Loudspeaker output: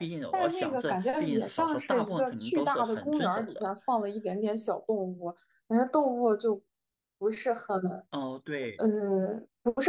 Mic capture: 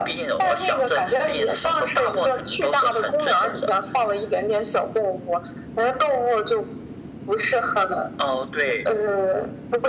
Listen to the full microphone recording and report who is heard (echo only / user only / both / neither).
echo only